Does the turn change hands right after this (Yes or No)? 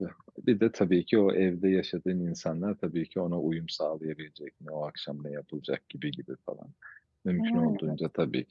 No